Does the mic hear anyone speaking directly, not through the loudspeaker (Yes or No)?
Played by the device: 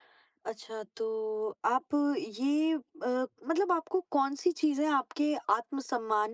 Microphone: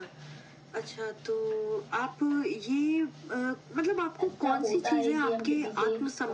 Yes